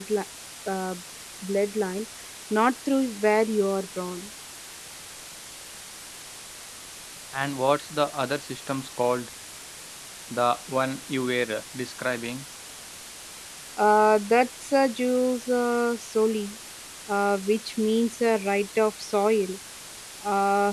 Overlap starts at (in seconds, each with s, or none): none